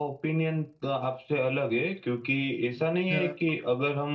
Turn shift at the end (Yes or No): No